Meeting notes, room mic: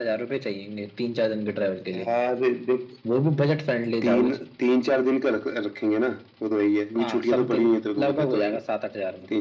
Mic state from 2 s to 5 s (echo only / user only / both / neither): echo only